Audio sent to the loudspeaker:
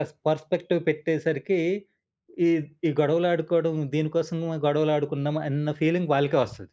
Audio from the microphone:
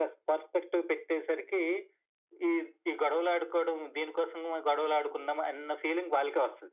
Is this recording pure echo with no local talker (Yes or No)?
Yes